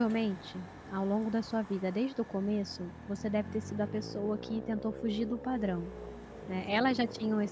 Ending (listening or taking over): listening